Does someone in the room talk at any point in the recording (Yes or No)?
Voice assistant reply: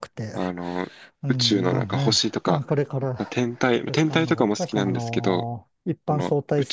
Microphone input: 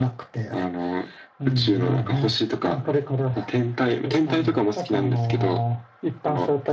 No